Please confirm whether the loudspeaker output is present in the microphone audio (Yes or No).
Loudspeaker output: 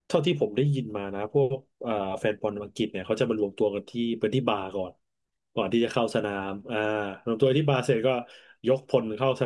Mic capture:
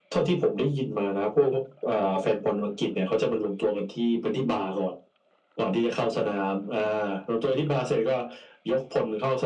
Yes